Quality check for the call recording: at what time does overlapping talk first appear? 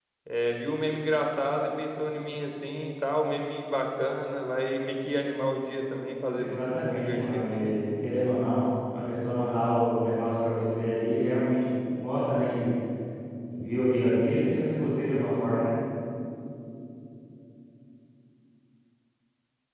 6.4 s

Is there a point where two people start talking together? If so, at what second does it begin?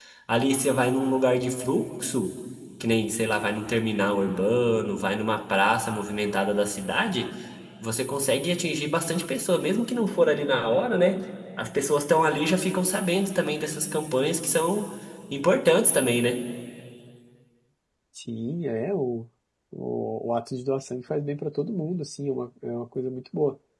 none

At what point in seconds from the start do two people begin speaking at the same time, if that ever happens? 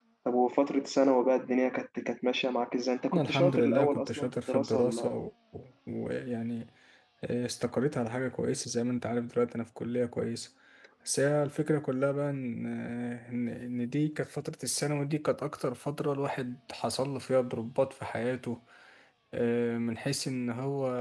3.0 s

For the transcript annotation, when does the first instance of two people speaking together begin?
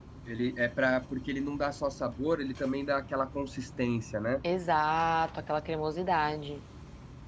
none

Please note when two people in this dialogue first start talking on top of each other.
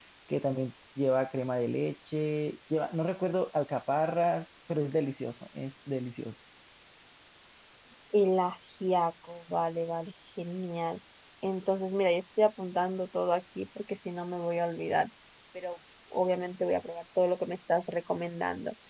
none

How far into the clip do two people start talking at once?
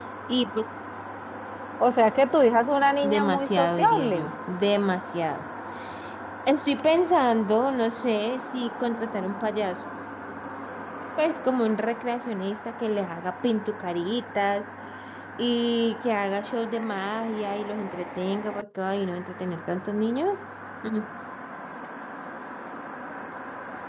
3.0 s

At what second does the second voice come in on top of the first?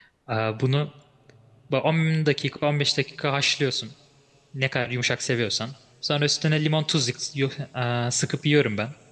none

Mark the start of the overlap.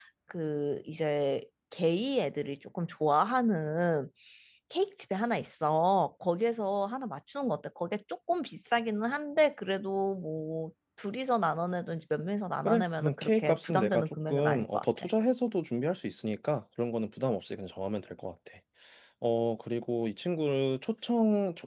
12.6 s

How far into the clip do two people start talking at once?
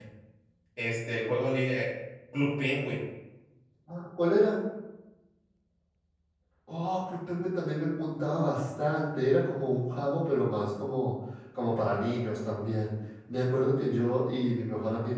none

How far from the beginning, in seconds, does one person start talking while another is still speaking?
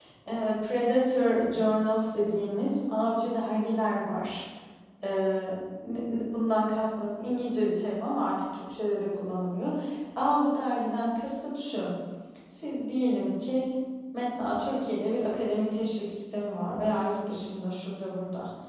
none

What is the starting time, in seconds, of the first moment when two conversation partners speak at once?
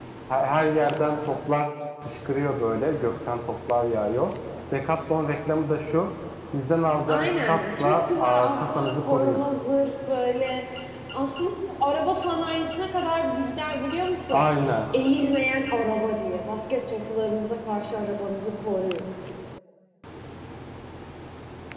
7.1 s

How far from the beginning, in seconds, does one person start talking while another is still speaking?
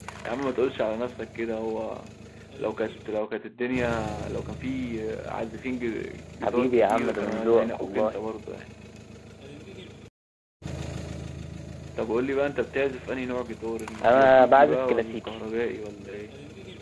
6.4 s

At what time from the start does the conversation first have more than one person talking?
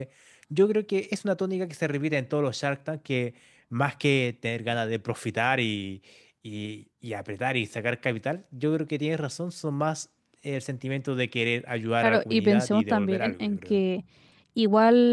12.0 s

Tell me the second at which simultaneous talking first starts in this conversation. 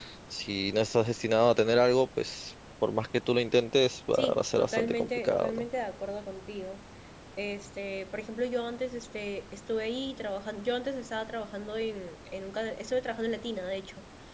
4.1 s

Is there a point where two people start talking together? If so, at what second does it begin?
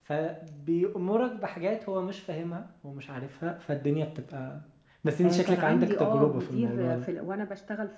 5.2 s

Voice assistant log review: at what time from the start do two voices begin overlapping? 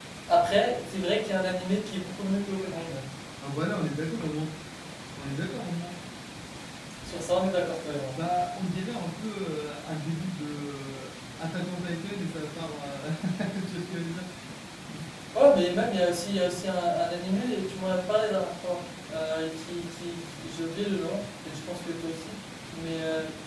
none

